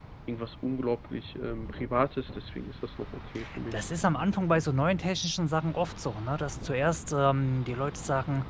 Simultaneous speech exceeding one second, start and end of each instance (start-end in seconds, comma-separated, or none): none